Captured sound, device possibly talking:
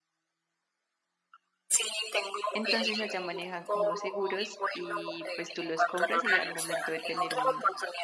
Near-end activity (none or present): present